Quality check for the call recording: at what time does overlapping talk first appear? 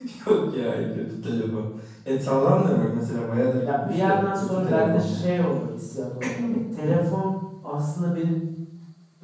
3.6 s

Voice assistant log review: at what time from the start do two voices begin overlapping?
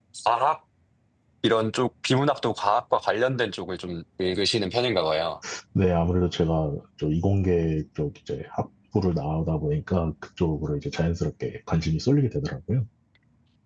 none

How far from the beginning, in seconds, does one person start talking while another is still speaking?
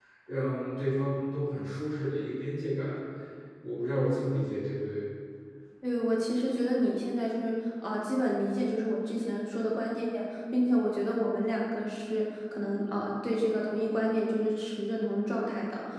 none

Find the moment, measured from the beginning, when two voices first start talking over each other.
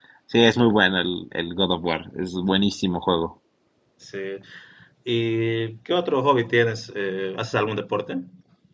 none

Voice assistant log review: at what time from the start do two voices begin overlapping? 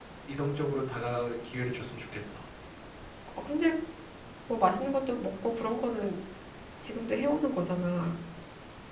none

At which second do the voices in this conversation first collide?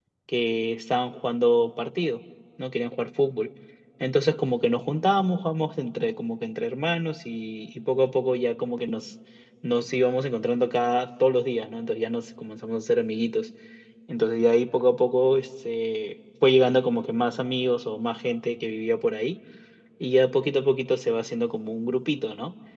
none

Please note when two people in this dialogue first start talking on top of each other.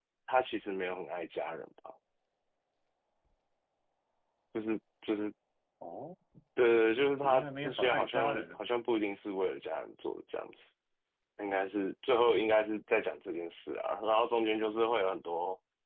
7.2 s

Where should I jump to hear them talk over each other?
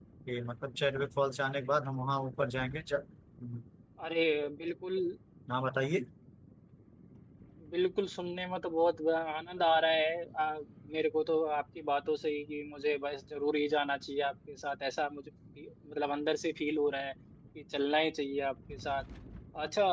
none

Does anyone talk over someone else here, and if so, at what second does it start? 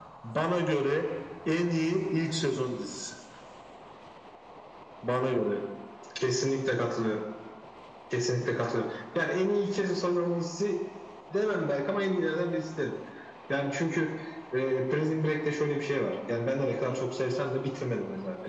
none

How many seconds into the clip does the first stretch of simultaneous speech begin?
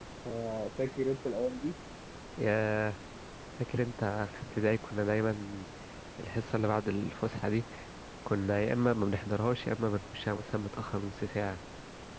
none

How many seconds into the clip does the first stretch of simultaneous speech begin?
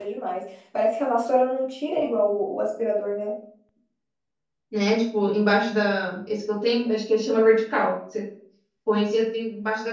none

